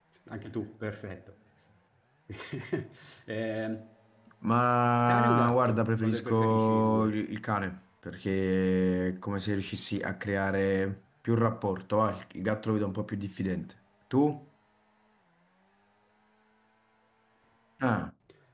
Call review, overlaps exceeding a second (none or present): present